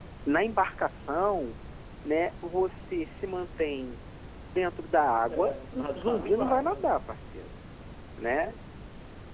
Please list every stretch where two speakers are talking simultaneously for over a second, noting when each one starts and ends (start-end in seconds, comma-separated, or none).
5.3-6.9